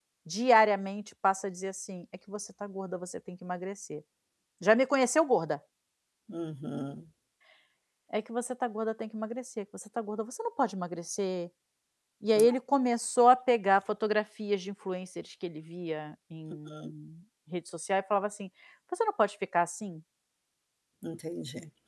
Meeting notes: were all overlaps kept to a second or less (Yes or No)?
Yes